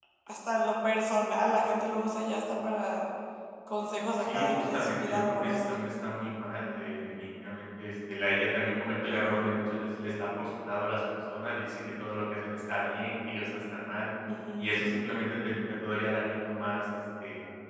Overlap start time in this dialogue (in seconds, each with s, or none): 4.2 s